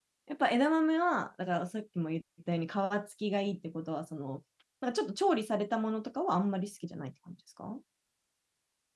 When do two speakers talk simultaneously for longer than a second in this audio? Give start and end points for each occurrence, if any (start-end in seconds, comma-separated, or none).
none